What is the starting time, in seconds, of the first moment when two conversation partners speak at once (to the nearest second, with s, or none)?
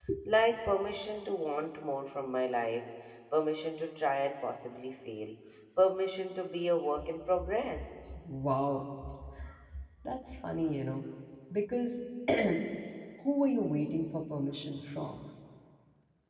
none